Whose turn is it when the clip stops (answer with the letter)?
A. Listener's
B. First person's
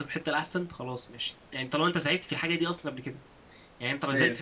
B